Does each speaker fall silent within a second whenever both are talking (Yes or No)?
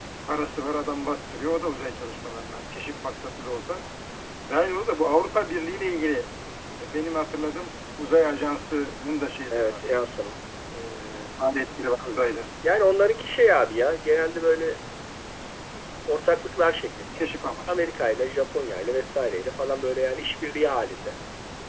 Yes